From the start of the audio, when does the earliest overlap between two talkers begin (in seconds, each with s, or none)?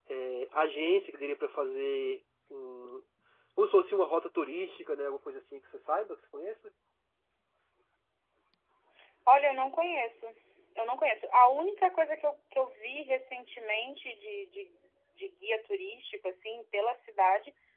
none